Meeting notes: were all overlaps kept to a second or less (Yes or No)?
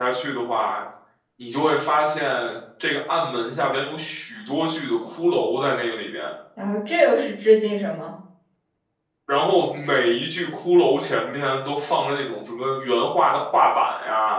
Yes